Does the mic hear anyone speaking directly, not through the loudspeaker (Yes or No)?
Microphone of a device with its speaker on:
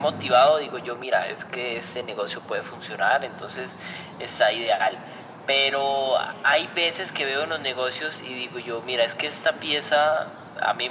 No